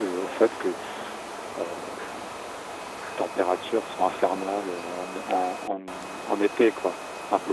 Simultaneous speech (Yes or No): No